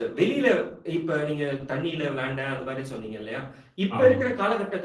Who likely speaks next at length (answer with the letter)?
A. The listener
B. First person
B